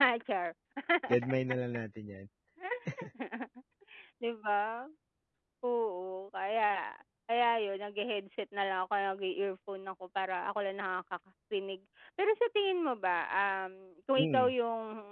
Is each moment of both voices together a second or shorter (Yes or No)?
Yes